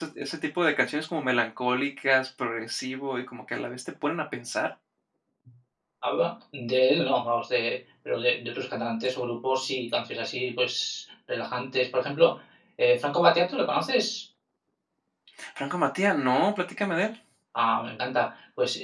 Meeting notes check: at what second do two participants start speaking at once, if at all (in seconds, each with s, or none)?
none